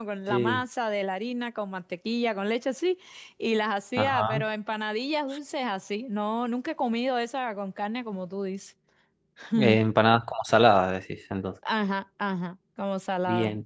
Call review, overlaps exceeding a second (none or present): none